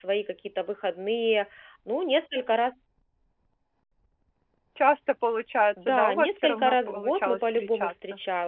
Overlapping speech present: Yes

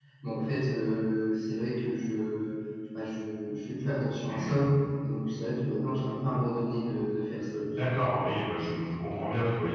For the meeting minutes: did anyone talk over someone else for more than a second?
No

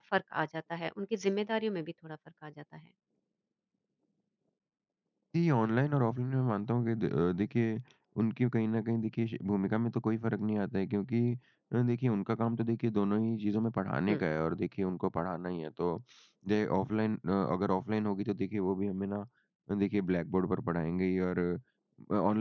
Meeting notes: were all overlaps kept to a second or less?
Yes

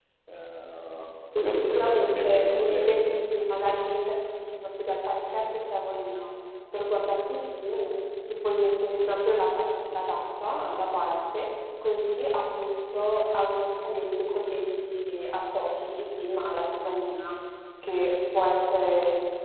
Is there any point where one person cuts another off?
Yes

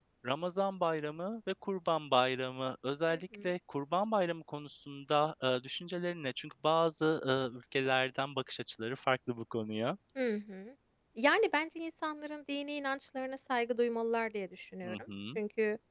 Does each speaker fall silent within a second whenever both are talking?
Yes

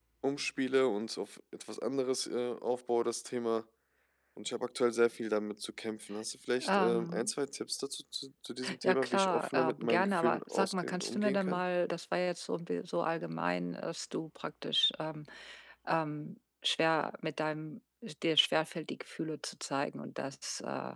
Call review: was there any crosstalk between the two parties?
Yes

